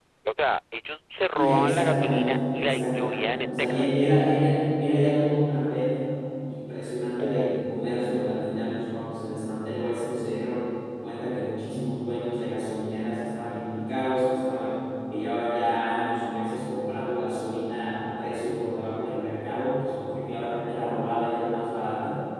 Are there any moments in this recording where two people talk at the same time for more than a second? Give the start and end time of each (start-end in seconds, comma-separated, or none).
1.3-4.0